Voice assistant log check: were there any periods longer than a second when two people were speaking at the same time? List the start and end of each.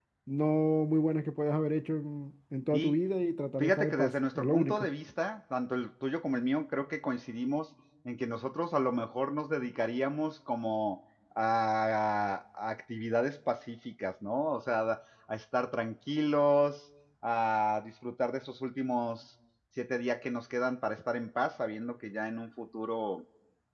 3.6-4.9

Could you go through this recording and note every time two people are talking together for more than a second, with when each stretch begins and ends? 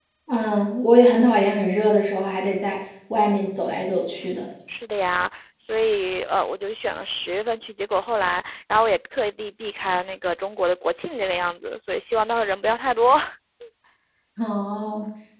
none

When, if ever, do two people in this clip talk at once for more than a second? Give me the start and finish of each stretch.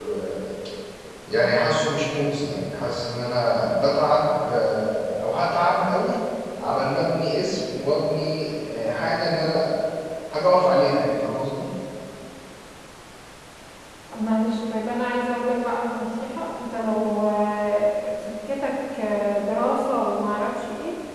none

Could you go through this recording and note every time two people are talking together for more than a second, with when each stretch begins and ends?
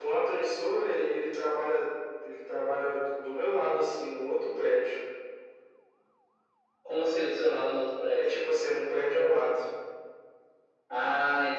none

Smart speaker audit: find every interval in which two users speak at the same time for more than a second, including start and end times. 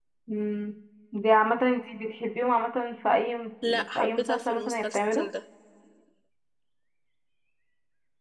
4.0-5.3

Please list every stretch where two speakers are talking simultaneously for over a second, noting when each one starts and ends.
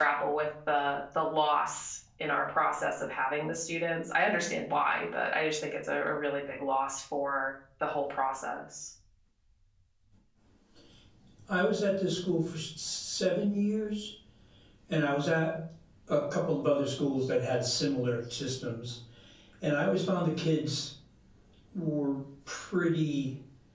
none

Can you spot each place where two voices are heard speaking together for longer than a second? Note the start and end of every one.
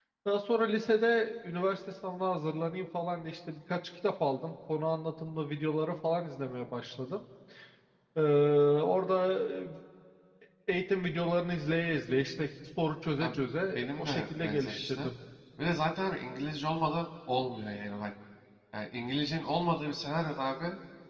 13.8-15.1

